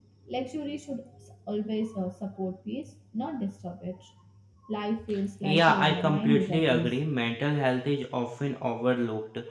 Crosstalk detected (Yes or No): Yes